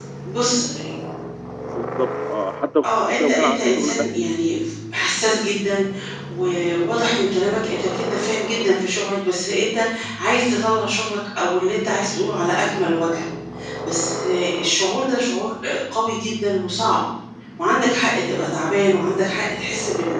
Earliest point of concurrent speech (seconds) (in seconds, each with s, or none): 2.8 s